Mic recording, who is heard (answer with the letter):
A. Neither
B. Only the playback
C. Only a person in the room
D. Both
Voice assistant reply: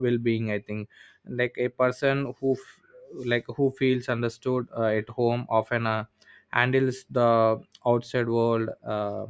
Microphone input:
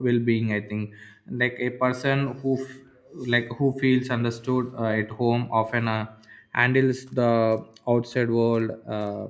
B